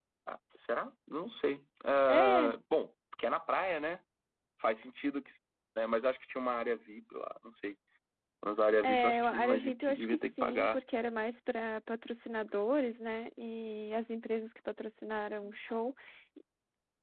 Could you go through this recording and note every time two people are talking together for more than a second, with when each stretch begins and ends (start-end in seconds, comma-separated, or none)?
8.8-10.8